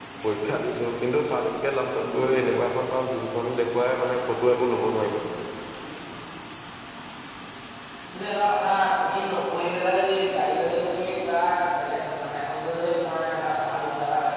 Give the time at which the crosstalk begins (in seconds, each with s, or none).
none